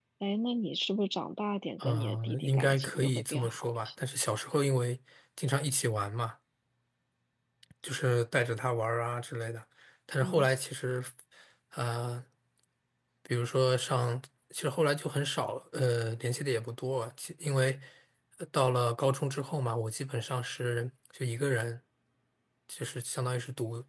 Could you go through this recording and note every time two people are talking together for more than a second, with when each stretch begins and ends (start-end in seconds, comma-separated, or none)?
1.8-4.0